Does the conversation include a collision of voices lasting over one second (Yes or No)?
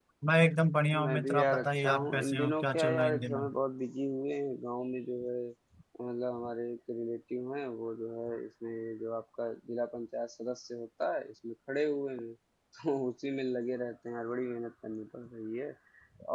Yes